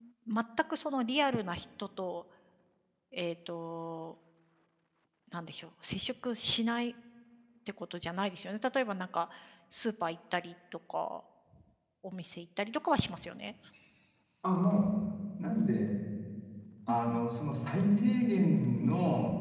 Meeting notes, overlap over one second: none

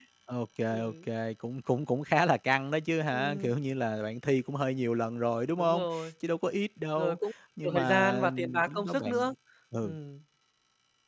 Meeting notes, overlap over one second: present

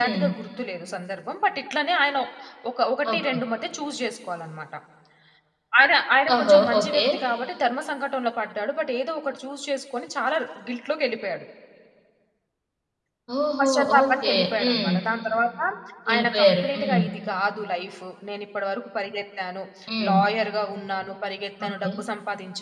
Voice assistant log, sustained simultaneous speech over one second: present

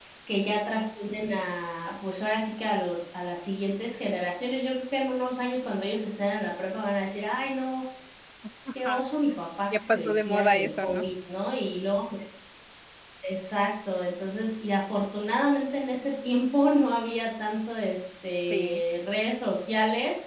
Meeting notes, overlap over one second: present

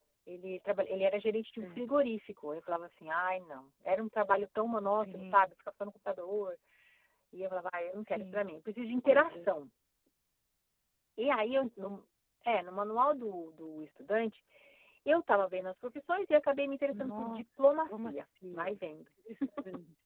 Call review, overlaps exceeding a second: present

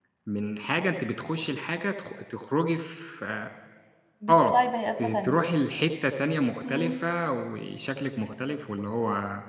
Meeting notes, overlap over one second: none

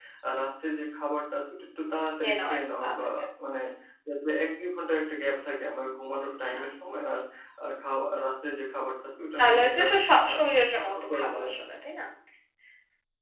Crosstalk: present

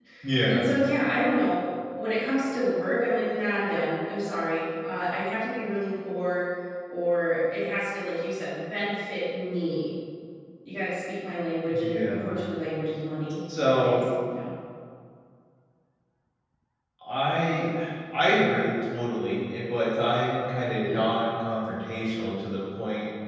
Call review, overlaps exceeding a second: none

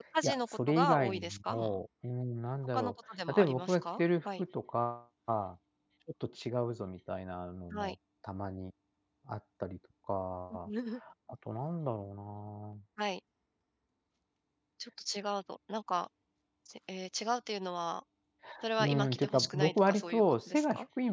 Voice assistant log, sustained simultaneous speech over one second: present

